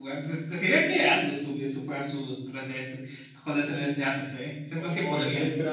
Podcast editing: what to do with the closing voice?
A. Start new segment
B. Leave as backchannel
A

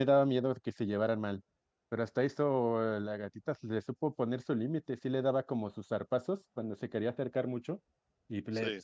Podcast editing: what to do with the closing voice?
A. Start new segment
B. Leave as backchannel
B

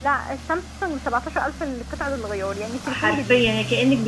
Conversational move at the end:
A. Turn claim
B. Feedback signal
A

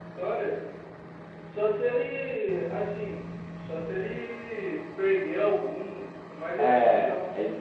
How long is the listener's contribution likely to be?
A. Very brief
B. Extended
B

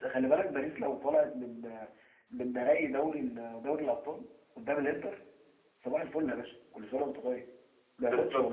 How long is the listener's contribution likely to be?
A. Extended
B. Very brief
A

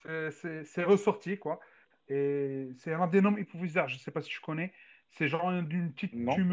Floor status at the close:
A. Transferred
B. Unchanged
B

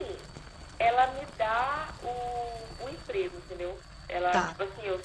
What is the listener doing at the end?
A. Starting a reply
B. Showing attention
B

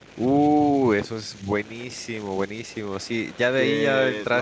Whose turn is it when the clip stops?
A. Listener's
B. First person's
B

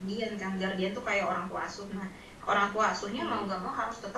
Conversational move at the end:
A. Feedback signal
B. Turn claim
A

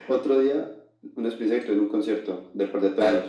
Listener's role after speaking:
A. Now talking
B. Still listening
A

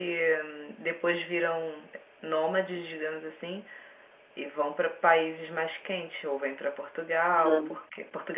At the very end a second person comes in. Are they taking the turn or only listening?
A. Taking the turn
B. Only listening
B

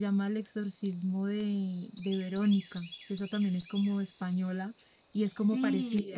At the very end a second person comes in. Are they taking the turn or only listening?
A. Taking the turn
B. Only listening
A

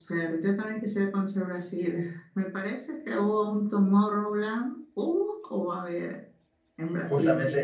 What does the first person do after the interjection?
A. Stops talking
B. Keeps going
A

